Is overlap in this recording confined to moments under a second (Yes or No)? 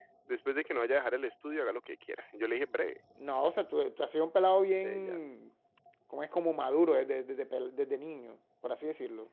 Yes